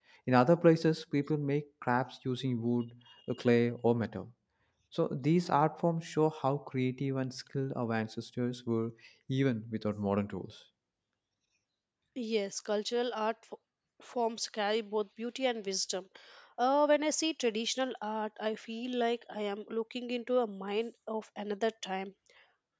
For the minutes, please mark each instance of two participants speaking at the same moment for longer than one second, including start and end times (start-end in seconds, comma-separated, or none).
none